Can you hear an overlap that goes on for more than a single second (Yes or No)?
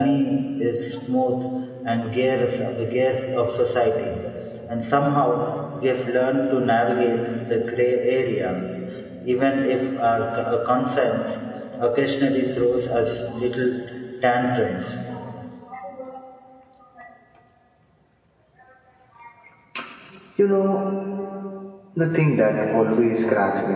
No